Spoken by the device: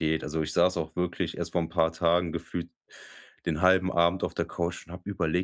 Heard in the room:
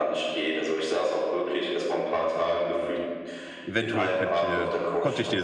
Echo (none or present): present